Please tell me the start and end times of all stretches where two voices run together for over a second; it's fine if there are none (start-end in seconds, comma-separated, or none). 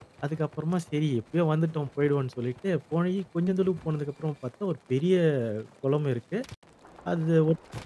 none